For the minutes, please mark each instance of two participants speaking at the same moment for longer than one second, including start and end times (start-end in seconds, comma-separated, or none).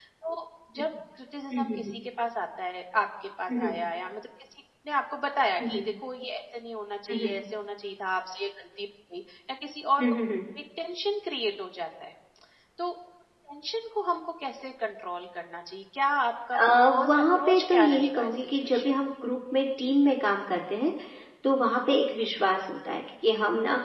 17.0-18.9